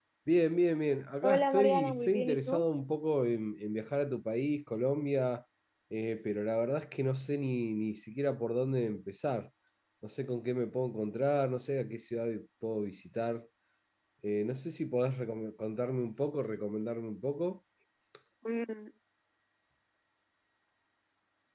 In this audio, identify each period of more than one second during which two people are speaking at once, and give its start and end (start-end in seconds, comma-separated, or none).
1.2-2.6